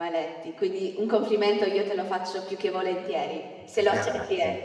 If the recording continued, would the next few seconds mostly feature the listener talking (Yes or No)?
Yes